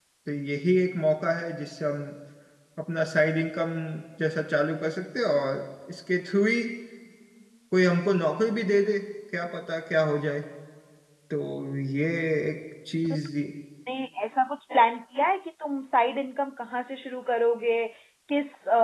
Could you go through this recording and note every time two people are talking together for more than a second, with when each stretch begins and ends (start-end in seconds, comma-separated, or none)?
none